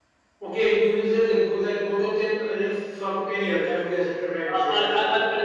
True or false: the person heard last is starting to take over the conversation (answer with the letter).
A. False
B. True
B